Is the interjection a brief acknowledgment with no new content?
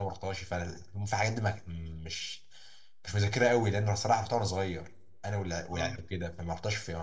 Yes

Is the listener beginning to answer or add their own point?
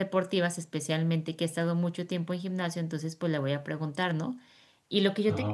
No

